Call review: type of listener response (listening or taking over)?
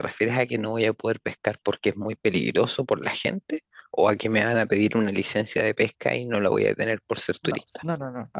taking over